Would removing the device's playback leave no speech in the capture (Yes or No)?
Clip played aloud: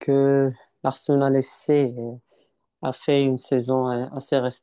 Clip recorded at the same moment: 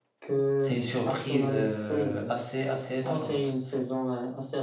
No